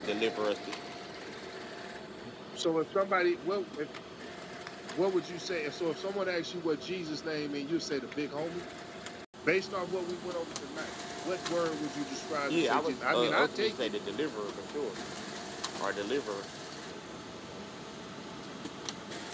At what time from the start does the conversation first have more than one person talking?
12.5 s

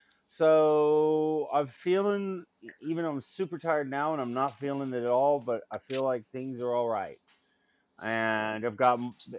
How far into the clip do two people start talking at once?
none

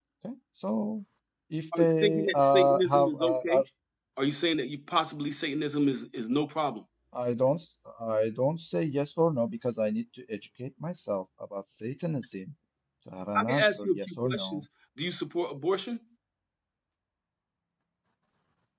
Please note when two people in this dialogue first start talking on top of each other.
1.8 s

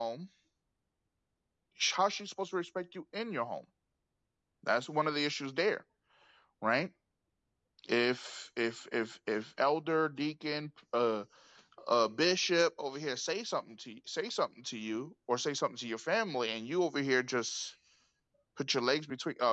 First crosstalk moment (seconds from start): none

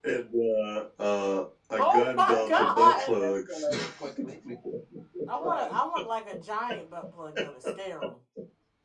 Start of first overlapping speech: 1.8 s

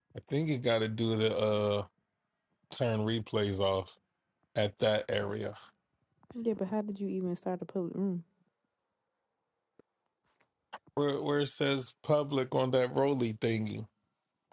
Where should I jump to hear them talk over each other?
none

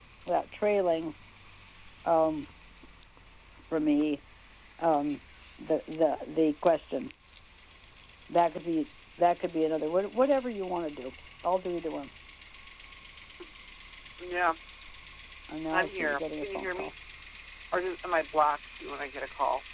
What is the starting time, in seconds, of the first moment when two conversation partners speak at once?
15.7 s

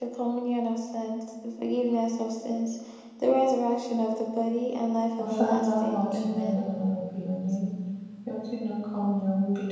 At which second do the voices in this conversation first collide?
5.2 s

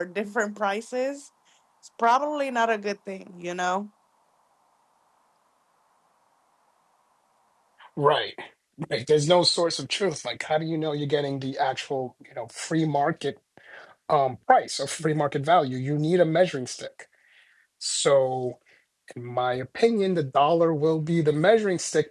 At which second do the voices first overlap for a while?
none

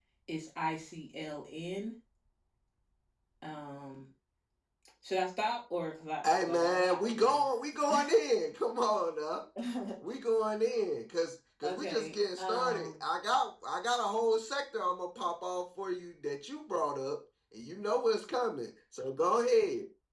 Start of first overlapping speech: 6.2 s

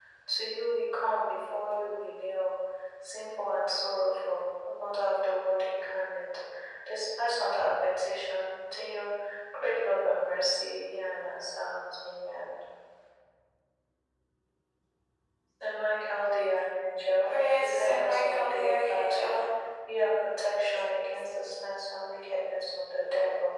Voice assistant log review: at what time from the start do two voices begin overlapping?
17.3 s

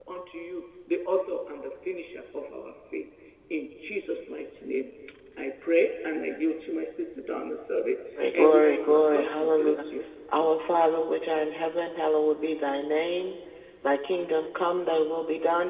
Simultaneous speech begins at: 8.3 s

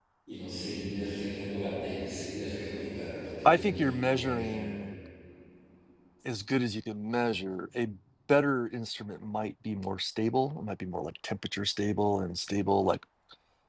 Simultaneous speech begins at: 3.4 s

